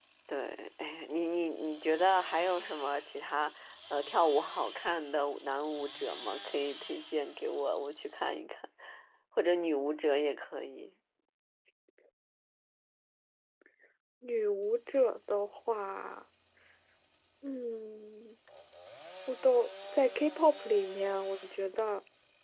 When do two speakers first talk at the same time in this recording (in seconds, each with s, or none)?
none